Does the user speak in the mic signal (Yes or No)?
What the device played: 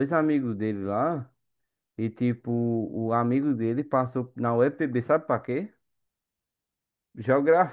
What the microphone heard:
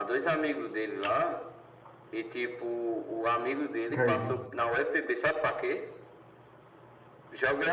Yes